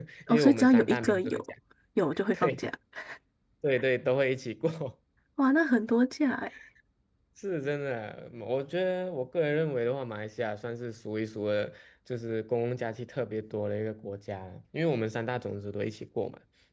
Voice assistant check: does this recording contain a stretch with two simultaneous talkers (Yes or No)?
Yes